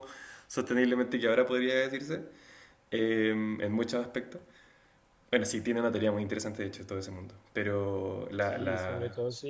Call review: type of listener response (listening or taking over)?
taking over